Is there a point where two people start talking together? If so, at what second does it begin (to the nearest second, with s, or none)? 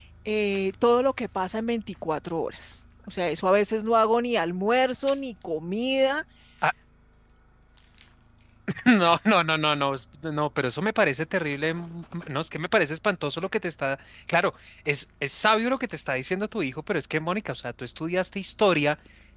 none